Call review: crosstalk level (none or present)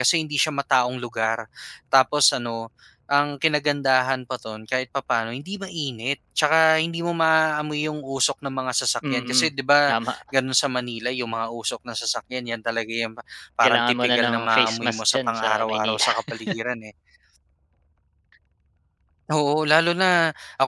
present